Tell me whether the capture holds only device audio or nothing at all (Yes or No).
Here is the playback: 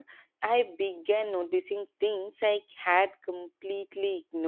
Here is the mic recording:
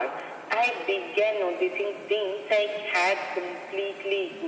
Yes